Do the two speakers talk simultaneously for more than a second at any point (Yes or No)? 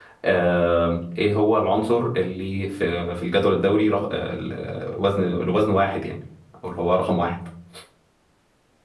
No